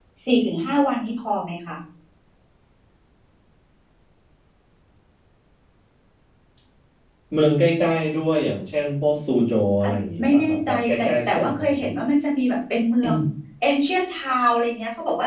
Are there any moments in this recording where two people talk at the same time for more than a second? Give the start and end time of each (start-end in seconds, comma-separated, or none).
10.2-11.6